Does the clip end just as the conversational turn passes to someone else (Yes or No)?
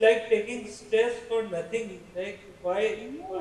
No